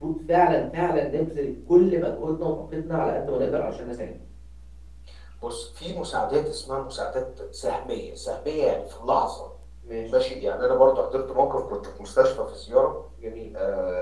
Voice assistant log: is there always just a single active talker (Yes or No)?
Yes